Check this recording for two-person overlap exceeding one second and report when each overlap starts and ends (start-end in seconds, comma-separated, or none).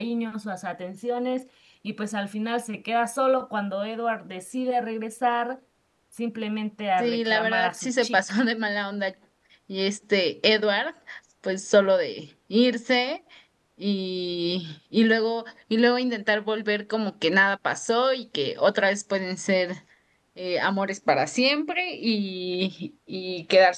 7.0-8.4